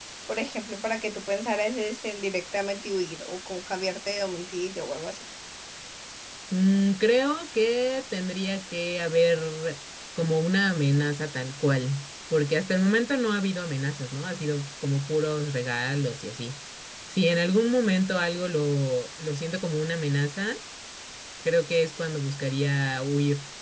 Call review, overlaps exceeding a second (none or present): none